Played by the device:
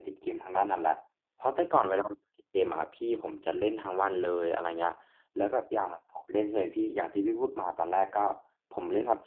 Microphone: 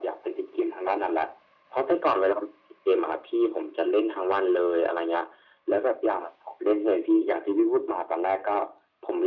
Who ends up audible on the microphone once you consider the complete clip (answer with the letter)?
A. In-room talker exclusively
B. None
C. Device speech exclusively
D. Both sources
C